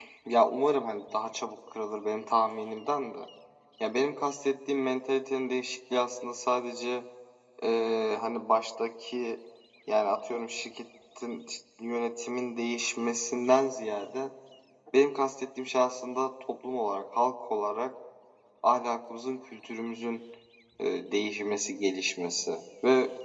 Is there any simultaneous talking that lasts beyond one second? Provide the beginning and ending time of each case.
none

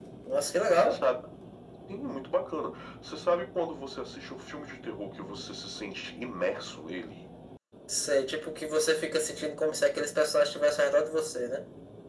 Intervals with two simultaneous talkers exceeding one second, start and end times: none

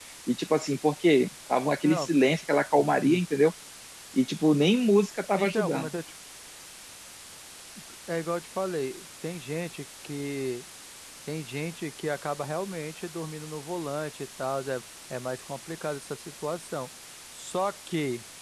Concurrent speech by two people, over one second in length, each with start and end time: none

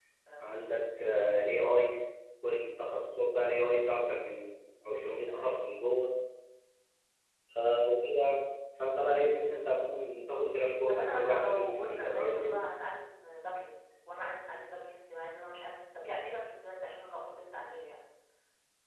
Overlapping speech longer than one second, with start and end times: 10.9-12.6

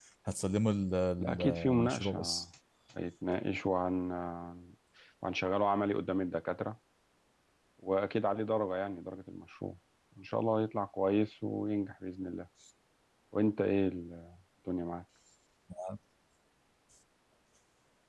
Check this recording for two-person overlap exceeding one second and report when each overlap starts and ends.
1.2-2.4

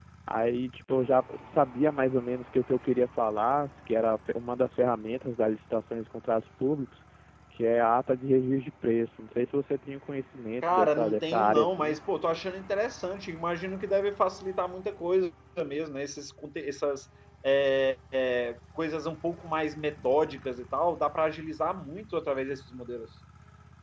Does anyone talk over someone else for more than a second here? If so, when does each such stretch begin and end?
10.6-12.0

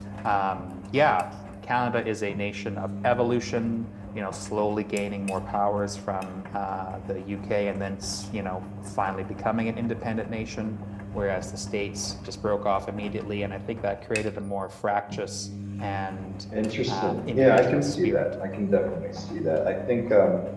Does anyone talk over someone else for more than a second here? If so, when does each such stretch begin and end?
16.9-18.2

